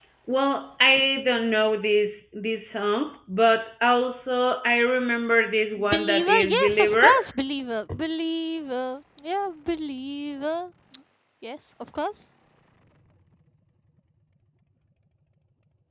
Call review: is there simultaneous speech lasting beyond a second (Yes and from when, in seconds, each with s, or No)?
Yes, from 5.8 s